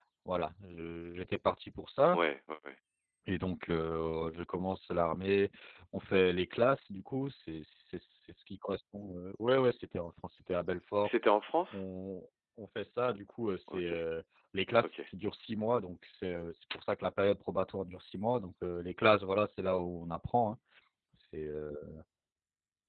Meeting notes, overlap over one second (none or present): none